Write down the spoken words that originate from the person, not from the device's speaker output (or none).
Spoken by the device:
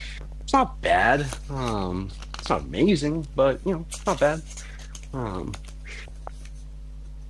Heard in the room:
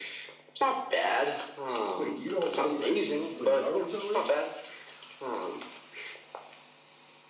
Wait, you don't know what what Naruto is?